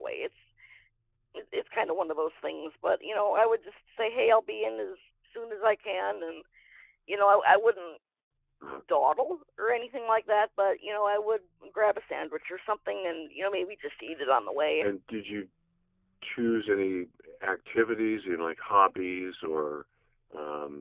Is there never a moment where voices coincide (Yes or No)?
Yes